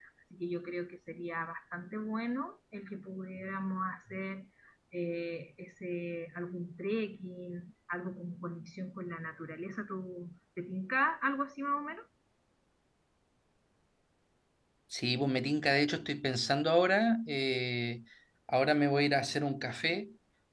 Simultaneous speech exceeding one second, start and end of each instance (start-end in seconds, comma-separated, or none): none